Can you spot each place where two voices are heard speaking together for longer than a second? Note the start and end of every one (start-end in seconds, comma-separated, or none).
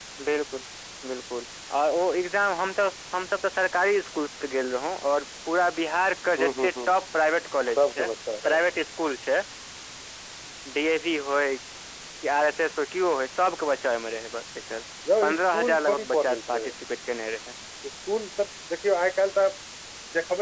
15.2-16.6